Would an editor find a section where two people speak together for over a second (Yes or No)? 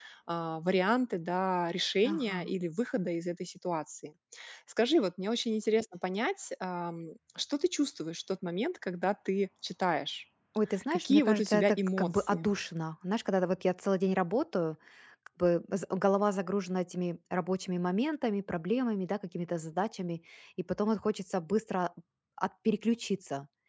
Yes